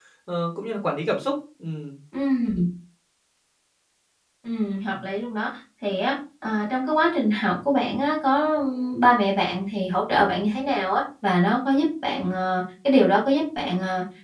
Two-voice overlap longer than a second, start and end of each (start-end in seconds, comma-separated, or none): none